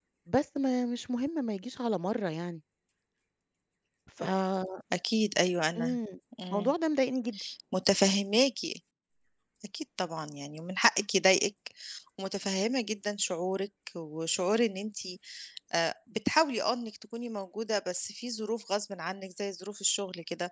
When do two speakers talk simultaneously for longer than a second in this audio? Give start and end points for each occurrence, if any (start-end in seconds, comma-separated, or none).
none